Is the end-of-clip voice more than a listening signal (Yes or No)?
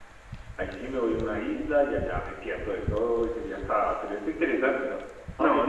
Yes